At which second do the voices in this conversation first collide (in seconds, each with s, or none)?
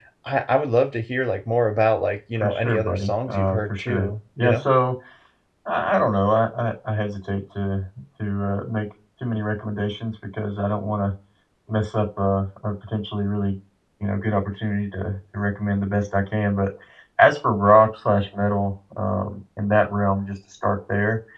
2.4 s